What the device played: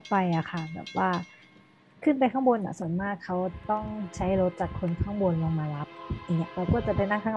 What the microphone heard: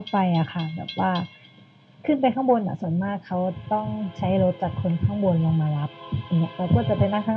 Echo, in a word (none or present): present